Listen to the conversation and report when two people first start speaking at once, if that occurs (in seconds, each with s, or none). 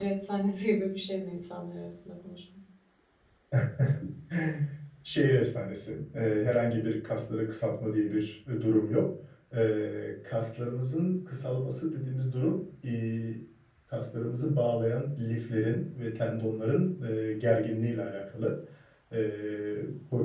none